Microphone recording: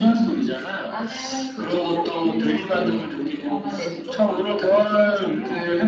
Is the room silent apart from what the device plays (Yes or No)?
Yes